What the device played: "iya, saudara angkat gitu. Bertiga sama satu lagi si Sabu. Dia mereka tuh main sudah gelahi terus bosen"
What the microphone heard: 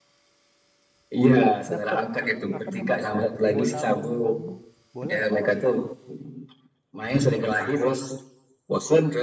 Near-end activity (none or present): present